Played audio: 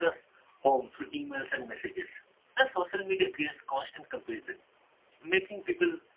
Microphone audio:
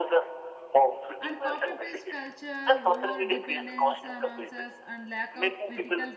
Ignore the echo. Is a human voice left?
Yes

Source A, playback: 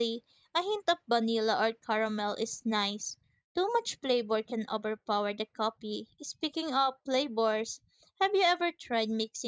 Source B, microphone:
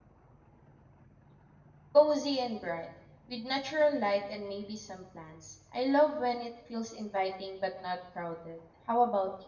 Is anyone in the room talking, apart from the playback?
Yes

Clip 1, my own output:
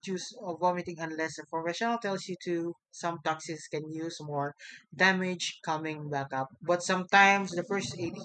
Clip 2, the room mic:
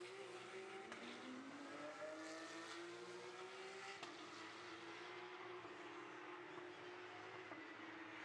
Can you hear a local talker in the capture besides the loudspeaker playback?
No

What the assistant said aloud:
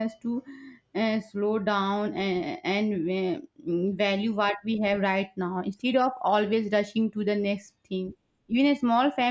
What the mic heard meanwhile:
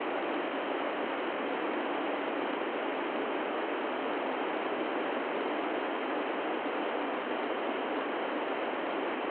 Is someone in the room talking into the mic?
No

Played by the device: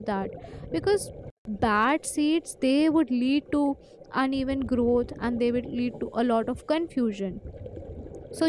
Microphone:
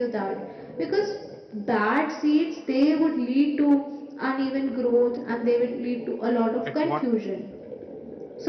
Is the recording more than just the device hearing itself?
Yes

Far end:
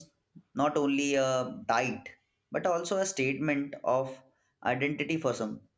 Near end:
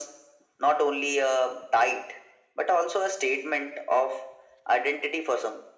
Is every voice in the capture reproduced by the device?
Yes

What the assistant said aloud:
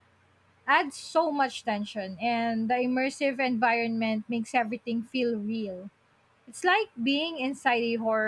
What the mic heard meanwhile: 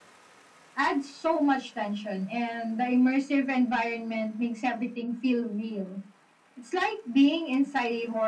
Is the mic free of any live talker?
Yes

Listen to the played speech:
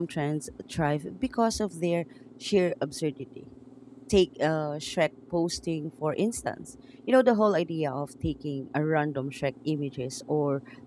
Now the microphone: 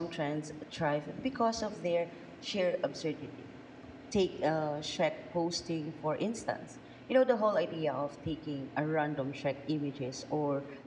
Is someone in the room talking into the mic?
No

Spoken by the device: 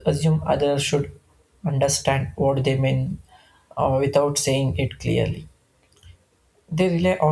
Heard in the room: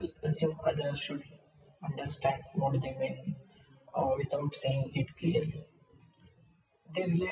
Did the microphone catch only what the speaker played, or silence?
Yes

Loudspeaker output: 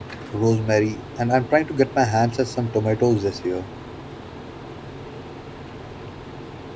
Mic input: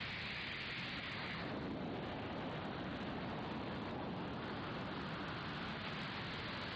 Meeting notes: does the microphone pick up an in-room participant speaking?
No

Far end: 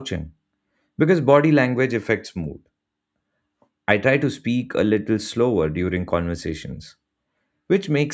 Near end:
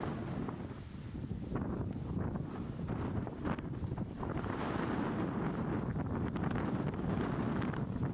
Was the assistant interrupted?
No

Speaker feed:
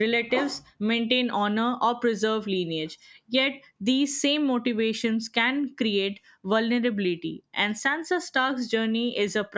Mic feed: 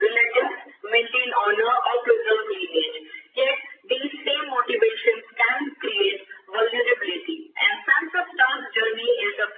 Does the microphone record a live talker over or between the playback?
No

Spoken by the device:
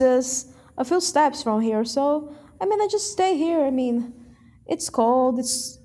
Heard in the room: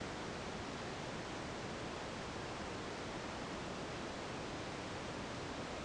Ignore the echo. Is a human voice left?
No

